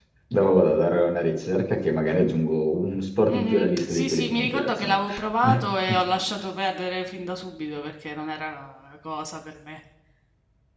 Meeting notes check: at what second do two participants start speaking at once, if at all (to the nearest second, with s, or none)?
3 s